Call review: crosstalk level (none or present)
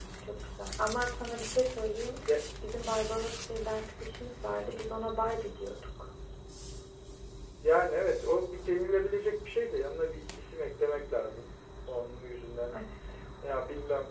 none